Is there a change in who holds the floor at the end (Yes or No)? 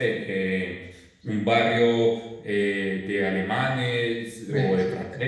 No